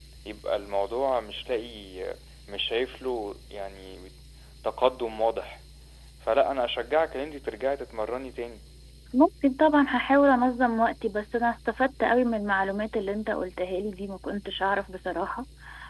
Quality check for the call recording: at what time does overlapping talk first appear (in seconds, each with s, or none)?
none